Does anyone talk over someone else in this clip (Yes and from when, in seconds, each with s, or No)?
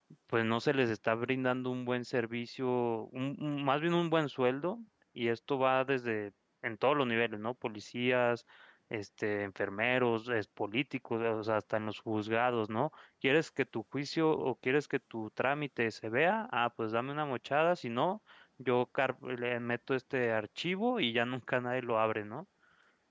No